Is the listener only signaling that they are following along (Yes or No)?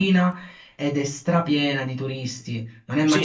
No